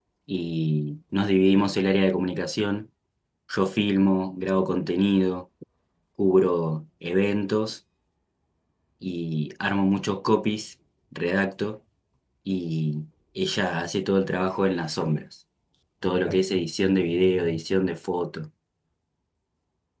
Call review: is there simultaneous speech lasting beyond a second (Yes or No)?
No